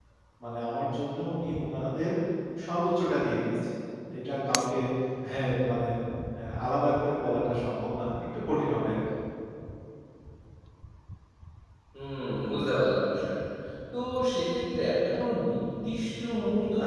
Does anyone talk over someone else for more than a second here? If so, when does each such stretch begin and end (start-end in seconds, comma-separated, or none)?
none